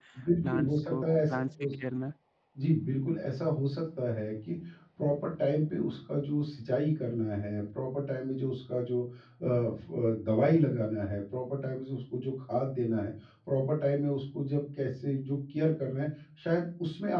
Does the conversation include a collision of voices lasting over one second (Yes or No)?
Yes